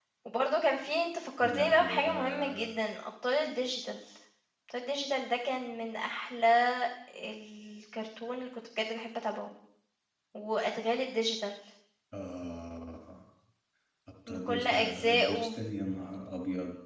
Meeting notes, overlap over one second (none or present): present